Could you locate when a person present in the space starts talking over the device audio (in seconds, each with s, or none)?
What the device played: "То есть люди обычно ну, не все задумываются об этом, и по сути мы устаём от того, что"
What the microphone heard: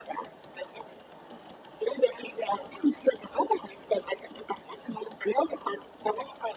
none